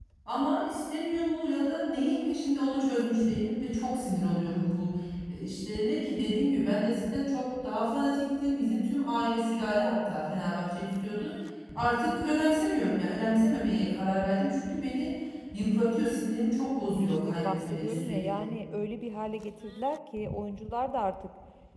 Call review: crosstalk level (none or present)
present